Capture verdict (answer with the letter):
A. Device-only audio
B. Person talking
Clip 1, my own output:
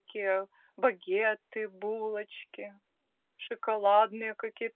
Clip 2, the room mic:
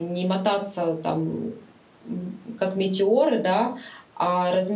B